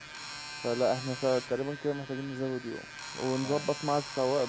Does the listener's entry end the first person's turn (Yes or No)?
No